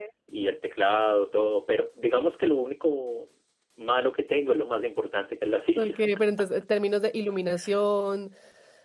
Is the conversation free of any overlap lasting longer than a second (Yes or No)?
Yes